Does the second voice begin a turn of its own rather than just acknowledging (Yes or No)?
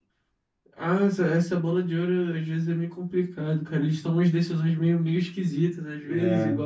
No